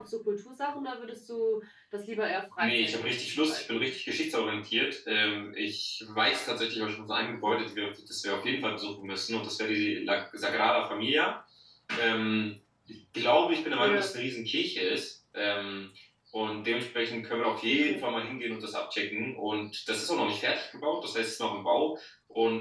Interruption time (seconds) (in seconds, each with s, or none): 2.6 s